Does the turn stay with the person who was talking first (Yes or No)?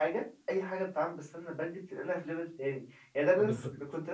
Yes